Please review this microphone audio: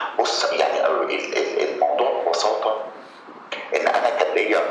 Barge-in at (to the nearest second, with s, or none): none